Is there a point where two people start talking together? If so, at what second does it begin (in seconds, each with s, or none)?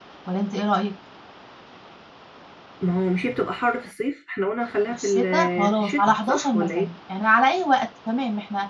4.9 s